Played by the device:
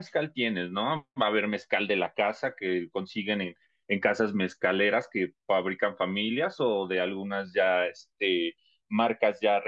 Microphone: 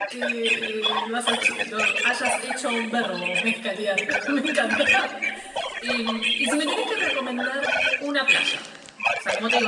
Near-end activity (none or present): present